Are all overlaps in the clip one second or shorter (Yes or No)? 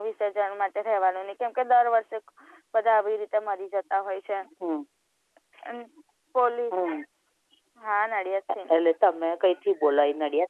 Yes